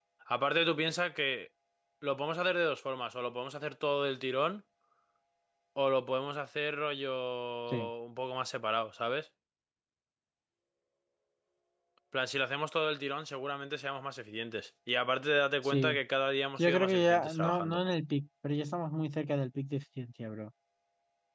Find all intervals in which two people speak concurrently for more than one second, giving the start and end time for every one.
16.6-17.8

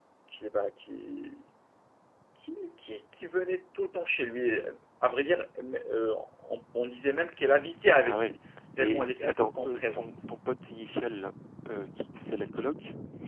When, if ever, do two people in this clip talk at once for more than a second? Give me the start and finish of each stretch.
8.8-10.1

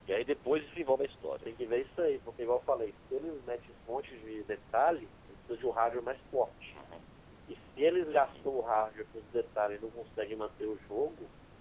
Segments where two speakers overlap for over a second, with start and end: none

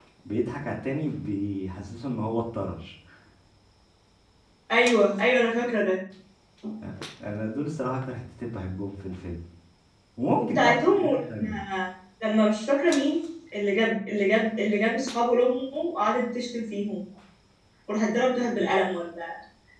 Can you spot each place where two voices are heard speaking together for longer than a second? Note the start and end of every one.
10.4-11.6

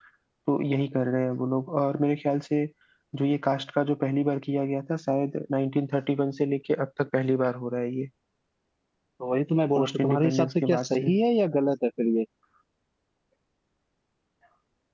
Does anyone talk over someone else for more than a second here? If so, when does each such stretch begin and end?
9.8-11.1

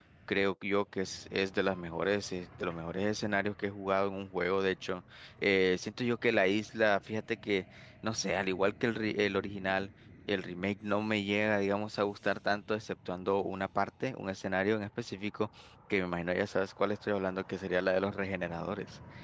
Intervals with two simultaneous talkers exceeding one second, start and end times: none

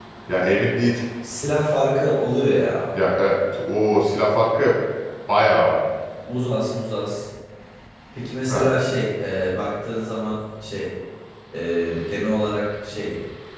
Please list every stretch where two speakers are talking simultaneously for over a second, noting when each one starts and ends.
none

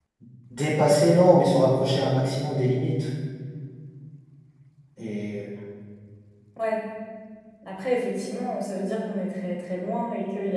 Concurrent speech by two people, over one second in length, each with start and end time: none

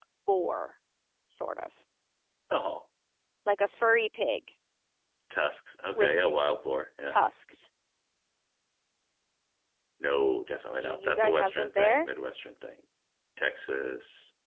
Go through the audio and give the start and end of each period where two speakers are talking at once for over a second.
10.7-12.1

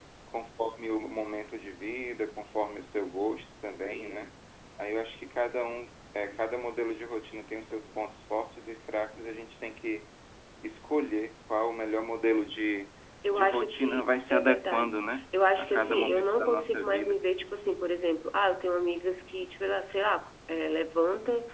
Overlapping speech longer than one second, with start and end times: 13.3-14.9, 15.6-17.2

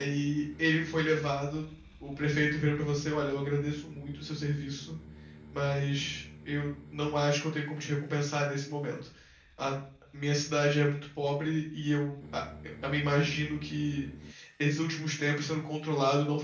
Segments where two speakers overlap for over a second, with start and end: none

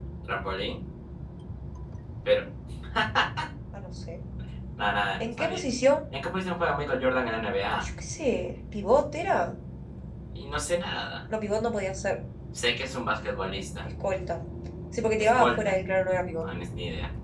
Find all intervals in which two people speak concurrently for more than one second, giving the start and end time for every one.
none

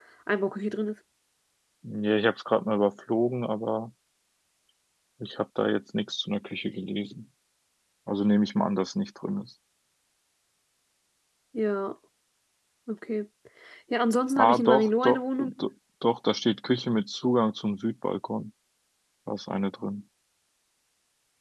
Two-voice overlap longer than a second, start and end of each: 14.4-15.6

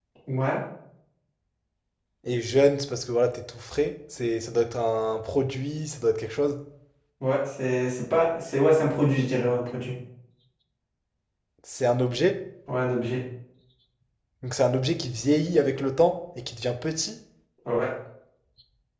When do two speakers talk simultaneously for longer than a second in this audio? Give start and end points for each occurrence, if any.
none

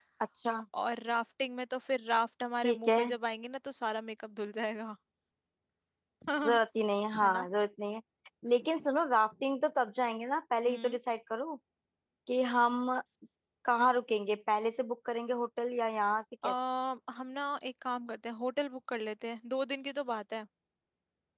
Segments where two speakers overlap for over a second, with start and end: none

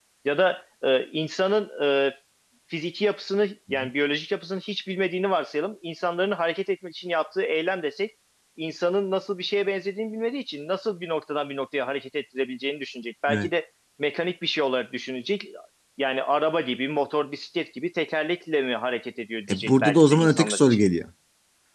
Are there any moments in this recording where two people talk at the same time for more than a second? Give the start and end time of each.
19.5-20.8

